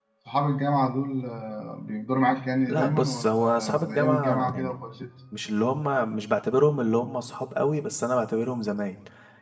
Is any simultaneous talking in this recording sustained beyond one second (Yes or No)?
Yes